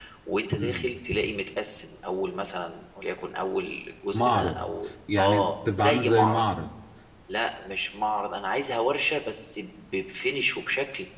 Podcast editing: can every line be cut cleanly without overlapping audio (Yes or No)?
No